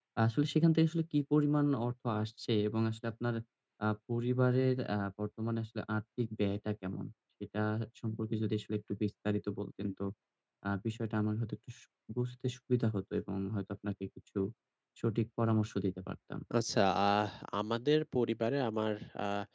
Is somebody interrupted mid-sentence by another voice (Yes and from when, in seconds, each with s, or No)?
No